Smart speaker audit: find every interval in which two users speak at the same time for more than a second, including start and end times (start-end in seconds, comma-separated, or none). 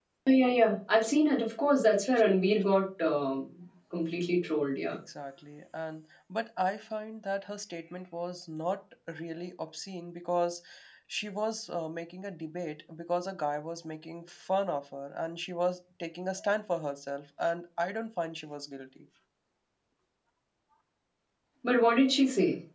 none